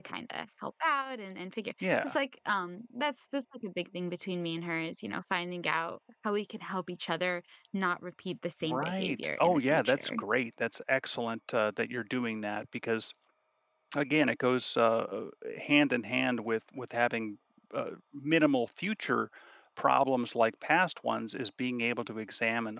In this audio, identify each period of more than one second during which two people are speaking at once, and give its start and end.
8.6-10.1

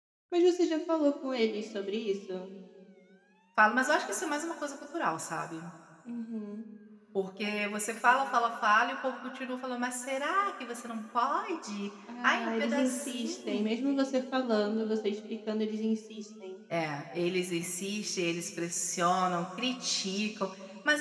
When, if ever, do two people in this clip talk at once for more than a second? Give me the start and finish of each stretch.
12.2-13.7

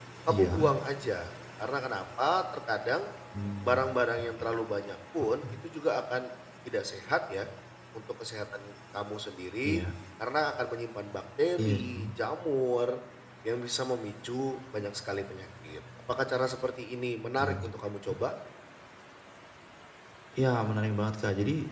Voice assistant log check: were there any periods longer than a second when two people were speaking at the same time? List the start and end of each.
none

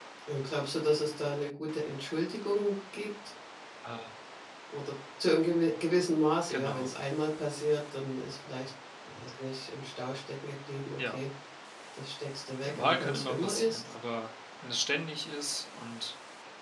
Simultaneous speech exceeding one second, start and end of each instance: 12.6-13.9

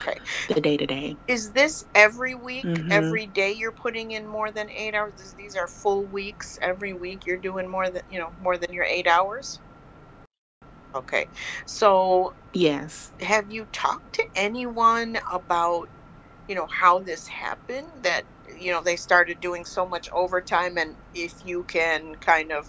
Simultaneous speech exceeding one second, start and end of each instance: none

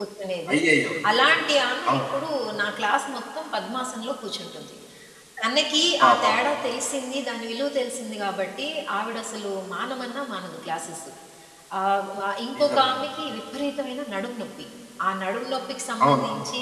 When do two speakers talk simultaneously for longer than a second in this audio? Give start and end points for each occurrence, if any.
none

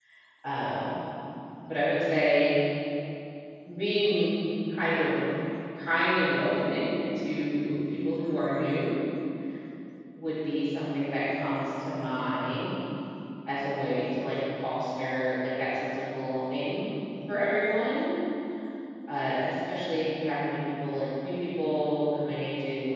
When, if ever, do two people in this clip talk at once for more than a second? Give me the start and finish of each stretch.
none

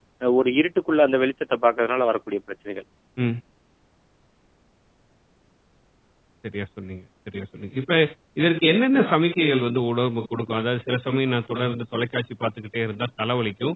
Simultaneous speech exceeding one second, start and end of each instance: none

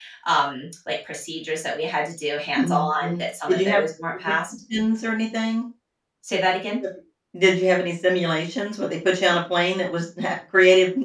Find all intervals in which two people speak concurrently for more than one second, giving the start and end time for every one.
2.6-3.8

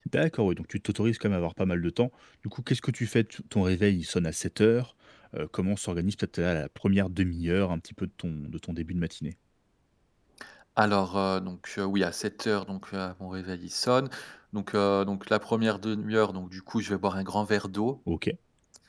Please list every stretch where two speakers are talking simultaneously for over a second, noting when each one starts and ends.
none

